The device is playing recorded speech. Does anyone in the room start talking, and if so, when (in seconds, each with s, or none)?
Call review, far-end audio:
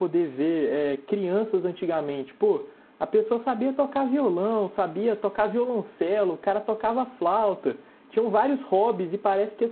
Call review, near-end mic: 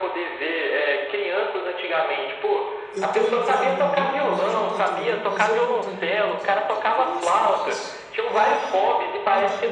2.9 s